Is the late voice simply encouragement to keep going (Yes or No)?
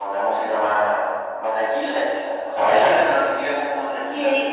No